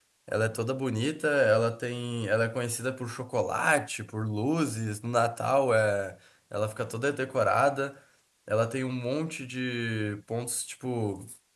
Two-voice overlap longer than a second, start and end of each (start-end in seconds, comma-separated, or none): none